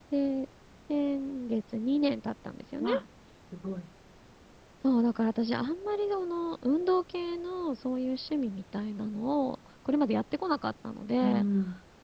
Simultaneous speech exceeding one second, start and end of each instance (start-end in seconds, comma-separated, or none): none